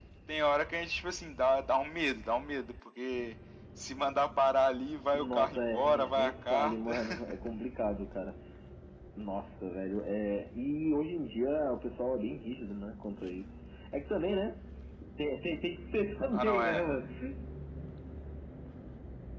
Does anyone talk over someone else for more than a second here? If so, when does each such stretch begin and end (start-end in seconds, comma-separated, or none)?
5.1-6.9